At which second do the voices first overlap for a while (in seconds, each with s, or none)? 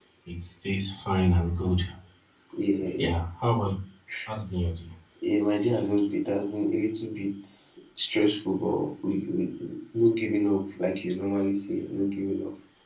none